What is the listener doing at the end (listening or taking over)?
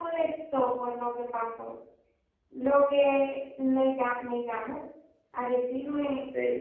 taking over